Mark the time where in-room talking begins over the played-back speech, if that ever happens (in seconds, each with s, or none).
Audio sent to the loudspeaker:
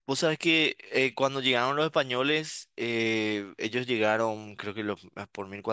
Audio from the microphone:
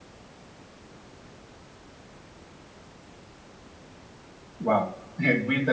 4.6 s